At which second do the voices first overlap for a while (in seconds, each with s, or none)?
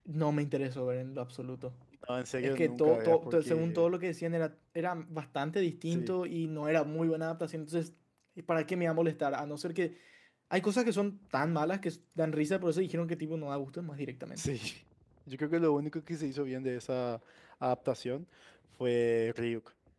2.4 s